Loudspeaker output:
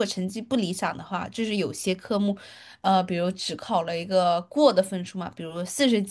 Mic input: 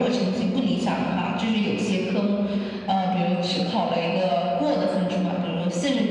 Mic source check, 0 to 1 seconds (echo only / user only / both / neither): echo only